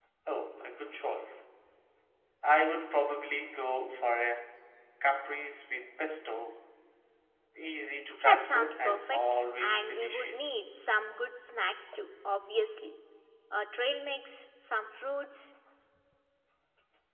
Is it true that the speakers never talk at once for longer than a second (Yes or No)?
No